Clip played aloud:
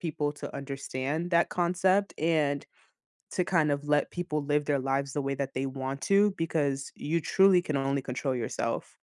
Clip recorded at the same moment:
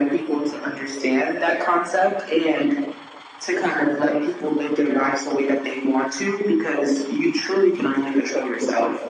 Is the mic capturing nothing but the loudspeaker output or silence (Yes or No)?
Yes